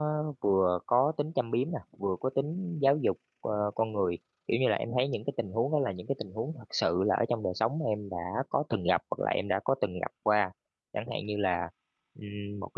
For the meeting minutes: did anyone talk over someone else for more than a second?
No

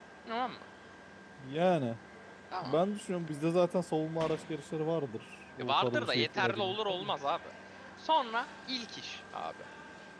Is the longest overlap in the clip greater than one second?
Yes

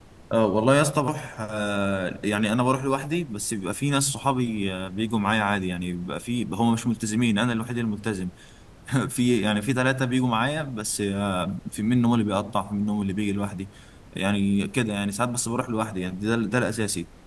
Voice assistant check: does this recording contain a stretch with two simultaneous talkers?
No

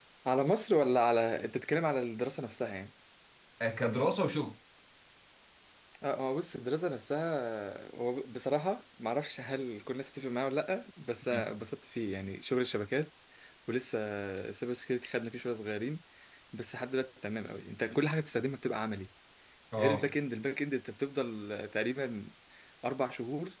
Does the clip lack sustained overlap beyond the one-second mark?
Yes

